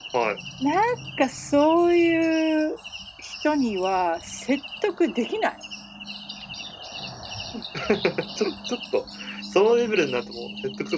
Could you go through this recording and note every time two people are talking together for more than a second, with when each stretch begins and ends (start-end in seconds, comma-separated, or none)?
none